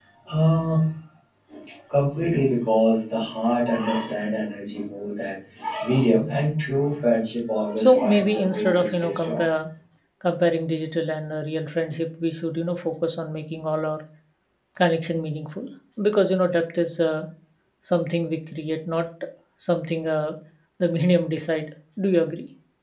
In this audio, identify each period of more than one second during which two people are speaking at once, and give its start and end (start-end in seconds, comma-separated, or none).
7.8-9.4